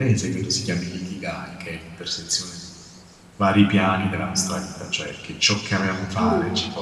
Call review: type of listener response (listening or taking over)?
listening